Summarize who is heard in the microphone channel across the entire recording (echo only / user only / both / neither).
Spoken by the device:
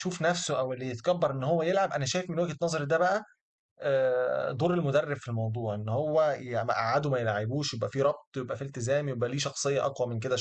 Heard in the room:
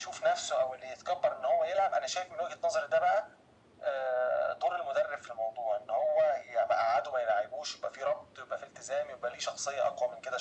echo only